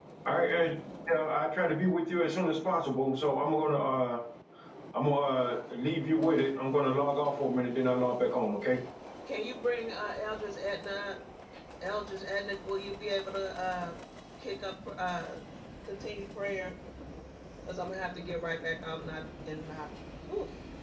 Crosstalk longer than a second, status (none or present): none